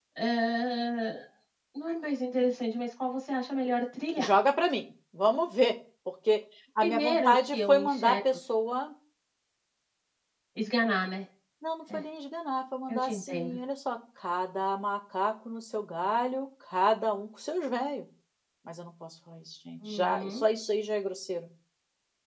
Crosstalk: present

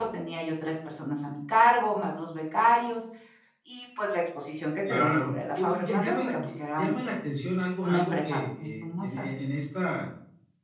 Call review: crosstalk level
present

